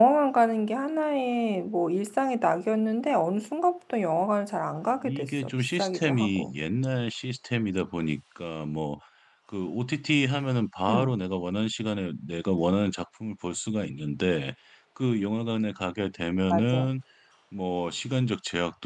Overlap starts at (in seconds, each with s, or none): 5.0 s